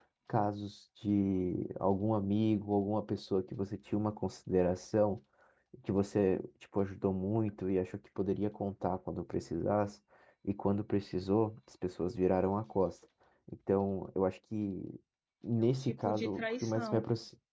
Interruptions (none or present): present